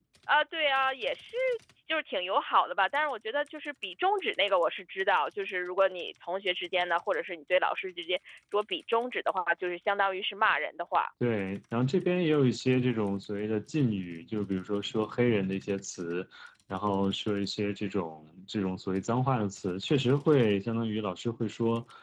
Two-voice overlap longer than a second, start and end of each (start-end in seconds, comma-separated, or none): none